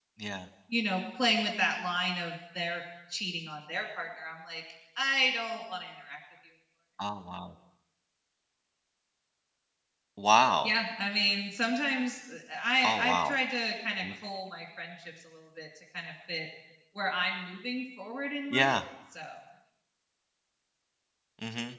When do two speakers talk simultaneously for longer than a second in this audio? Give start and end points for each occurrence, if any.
none

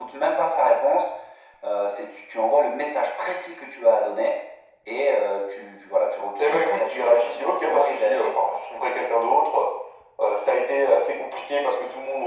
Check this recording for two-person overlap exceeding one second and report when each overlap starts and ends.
6.4-8.3

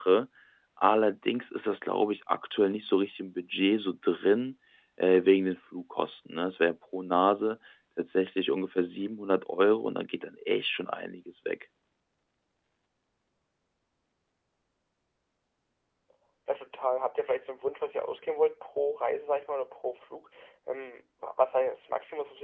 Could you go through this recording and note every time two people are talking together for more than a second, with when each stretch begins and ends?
none

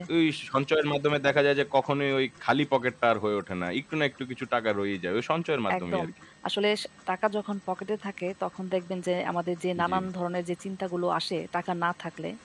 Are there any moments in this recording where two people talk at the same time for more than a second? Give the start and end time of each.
none

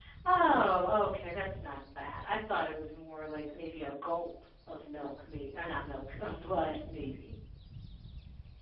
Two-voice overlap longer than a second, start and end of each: none

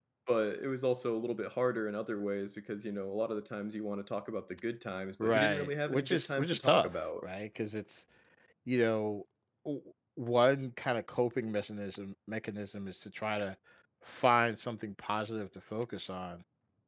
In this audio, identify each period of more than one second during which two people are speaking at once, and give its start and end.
5.2-7.0

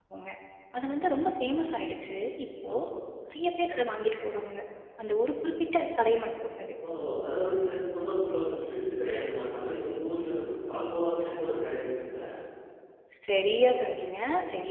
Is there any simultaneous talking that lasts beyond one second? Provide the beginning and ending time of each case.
none

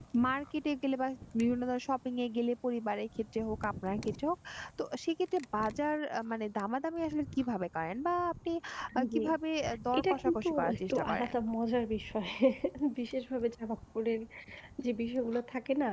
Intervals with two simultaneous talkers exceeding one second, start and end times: 10.0-11.3

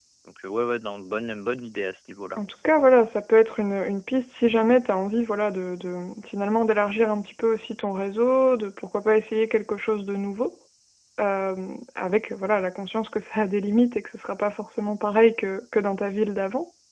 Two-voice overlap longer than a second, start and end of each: none

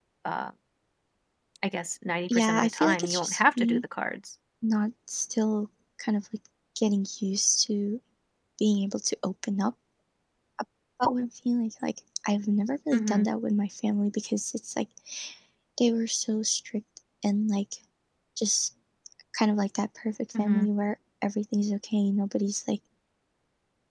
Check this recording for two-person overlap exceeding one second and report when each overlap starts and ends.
2.3-3.8

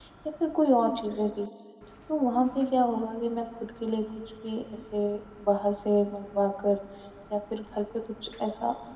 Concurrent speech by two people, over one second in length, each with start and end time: none

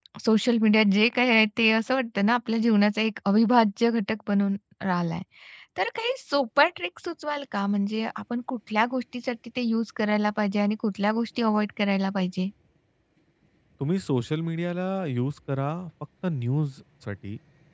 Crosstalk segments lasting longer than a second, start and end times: none

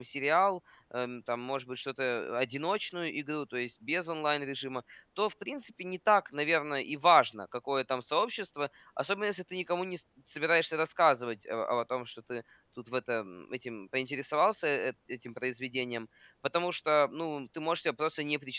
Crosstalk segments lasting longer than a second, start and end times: none

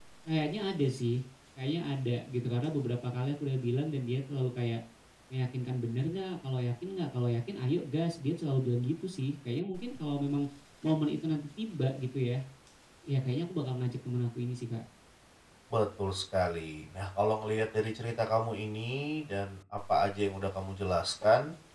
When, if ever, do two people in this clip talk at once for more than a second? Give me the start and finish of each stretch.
none

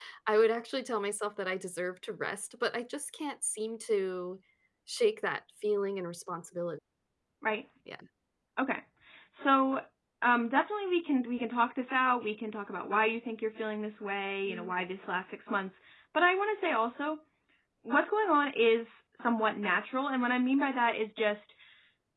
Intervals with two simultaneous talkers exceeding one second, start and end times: none

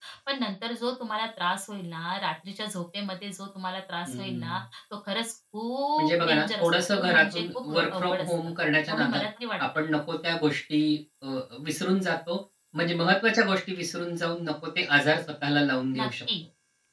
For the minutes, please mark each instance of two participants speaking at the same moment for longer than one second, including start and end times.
6.0-8.4

